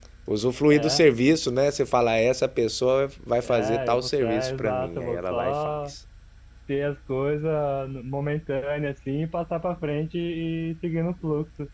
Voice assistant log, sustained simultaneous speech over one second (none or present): present